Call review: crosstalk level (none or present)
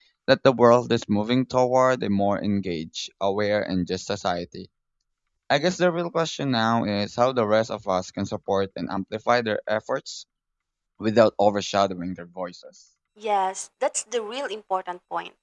none